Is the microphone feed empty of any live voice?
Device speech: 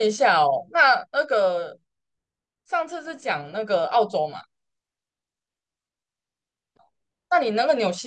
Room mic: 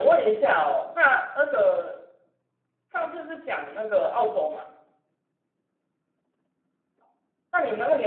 Yes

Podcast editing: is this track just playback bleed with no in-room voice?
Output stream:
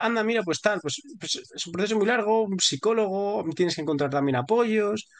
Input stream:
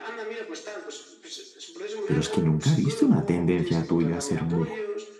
No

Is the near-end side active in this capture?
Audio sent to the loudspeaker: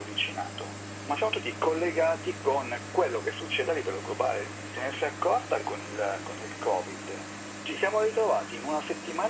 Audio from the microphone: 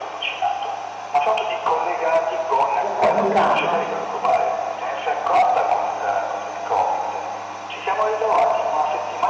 Yes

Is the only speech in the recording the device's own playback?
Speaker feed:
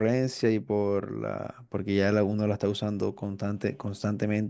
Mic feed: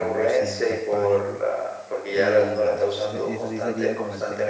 No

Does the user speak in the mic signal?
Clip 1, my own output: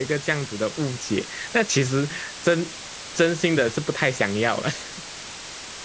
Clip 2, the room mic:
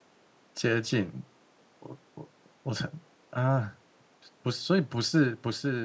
Yes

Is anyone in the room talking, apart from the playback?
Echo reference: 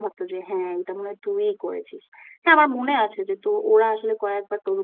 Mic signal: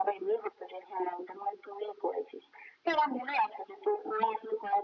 No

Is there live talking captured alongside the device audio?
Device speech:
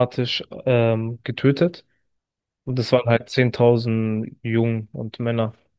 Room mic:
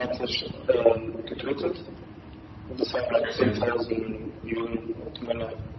Yes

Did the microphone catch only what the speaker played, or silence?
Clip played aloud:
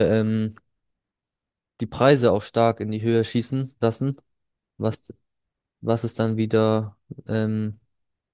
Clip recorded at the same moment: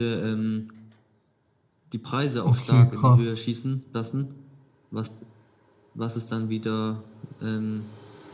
No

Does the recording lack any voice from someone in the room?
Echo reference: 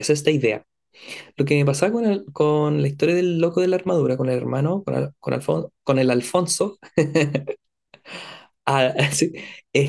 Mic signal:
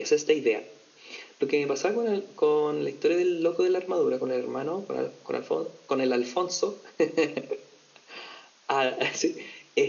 Yes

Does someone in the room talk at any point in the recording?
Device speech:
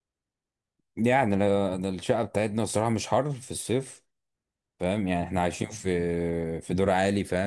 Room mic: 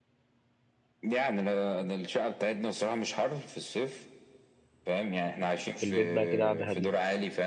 Yes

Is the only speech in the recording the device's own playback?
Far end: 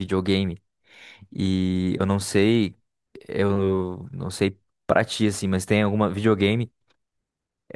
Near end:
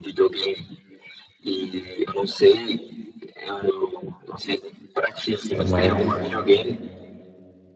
No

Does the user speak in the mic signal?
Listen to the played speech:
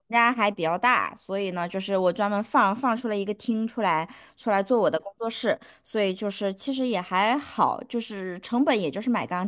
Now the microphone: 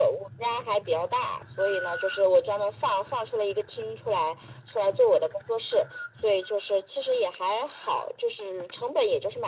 No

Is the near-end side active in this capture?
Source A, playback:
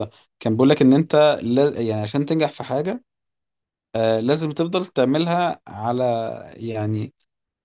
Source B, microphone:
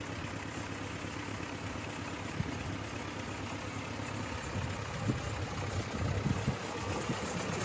No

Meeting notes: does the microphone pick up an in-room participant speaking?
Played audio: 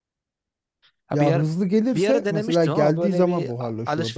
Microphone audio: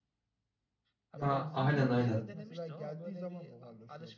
Yes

